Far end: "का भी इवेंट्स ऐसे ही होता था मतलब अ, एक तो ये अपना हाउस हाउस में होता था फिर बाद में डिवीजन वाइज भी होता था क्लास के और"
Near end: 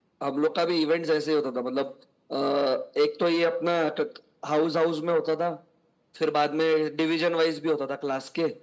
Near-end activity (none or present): none